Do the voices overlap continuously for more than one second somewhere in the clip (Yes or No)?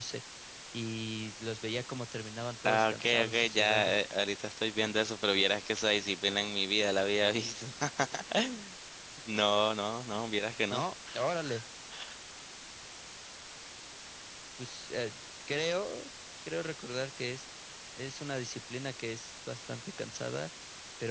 Yes